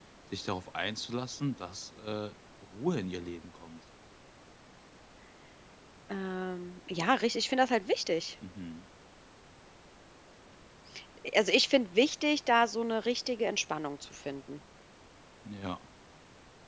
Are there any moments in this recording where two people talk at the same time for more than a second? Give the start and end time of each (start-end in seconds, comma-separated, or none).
none